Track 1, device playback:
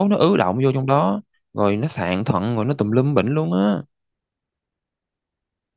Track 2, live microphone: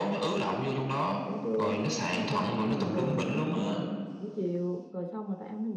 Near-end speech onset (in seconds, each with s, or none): 1.2 s